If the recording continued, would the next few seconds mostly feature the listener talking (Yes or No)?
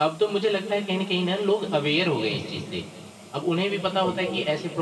No